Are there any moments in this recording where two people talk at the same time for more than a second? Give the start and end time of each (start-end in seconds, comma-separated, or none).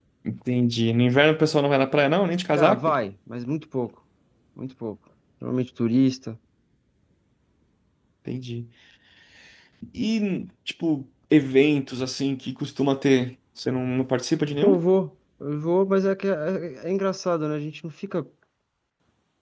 none